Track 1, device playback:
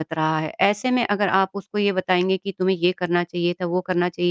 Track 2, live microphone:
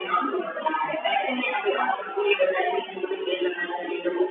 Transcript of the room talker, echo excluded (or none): none